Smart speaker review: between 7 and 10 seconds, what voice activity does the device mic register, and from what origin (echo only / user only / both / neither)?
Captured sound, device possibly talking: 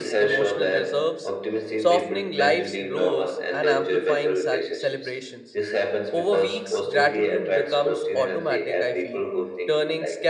both